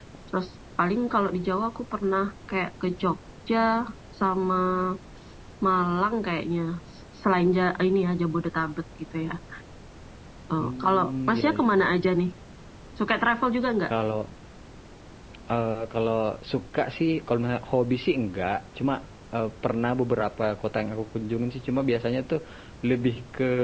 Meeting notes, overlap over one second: present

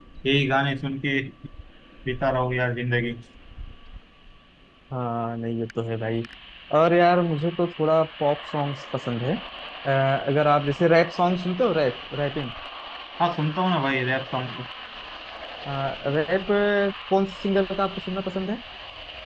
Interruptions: none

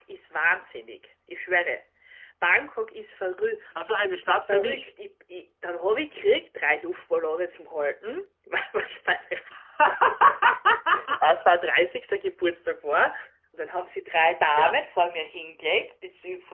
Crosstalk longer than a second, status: none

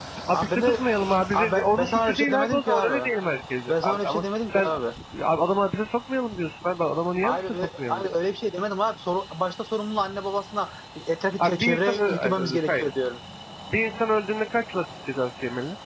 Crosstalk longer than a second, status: present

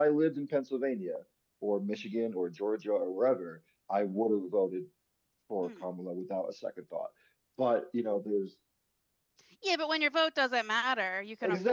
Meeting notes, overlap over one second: none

